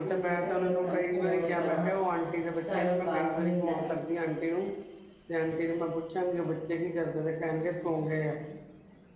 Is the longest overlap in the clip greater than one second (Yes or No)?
Yes